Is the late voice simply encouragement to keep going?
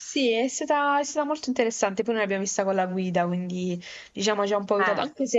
Yes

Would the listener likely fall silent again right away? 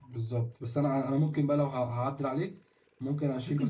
Yes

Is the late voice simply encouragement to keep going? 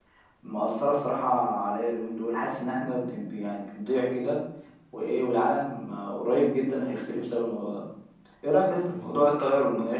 Yes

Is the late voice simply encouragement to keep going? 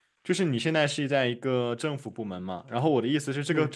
Yes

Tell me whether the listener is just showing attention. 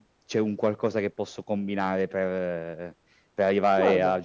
Yes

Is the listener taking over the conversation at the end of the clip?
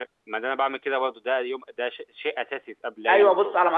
Yes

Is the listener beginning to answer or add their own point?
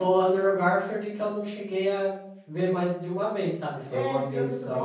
Yes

